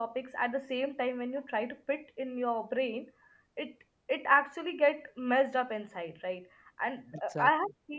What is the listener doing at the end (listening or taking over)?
listening